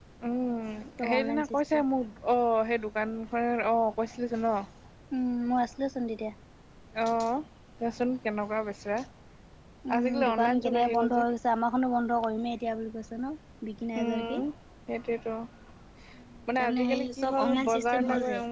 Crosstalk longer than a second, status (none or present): present